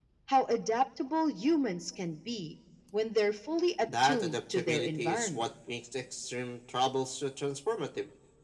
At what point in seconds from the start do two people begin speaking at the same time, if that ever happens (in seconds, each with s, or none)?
3.9 s